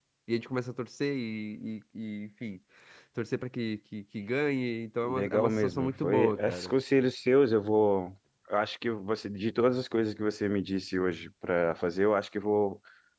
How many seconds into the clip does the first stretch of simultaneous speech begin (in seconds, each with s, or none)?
5.0 s